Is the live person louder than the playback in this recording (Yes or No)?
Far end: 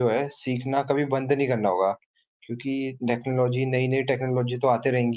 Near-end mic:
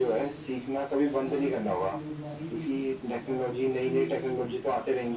No